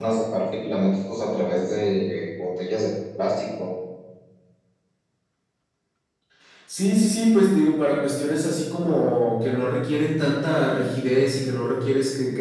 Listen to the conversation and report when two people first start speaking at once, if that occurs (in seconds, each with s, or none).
none